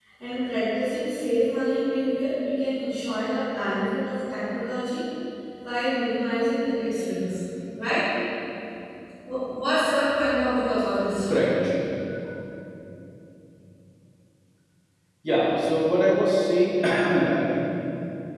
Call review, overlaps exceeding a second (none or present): none